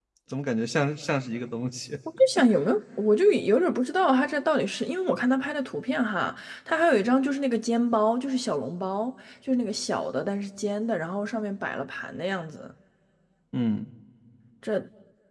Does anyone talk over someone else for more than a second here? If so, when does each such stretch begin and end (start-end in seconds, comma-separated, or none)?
none